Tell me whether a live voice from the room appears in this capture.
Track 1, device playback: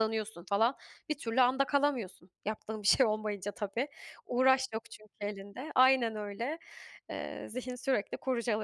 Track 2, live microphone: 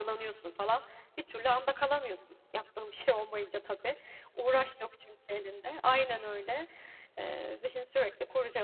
No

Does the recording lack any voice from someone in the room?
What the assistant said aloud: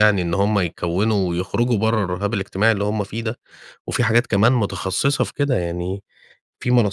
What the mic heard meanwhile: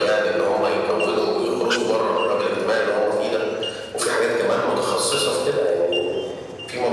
Yes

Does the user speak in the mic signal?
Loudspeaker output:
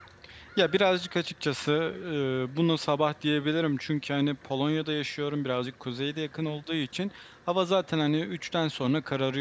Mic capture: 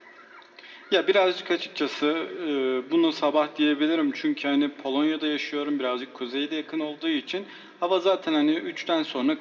No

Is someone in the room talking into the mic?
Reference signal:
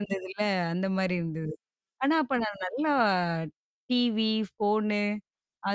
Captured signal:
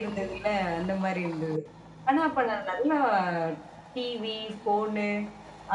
No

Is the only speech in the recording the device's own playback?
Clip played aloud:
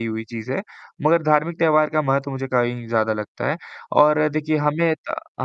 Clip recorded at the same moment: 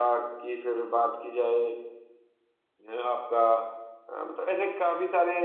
No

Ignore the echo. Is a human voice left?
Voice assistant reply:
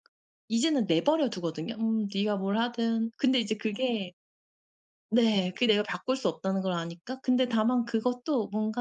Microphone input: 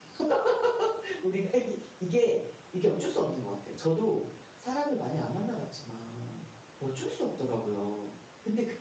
Yes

